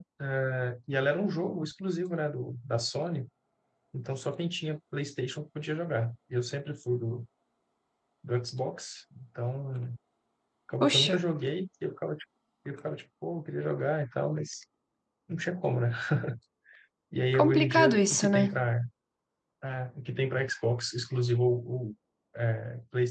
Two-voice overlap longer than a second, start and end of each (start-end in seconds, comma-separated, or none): 17.3-18.6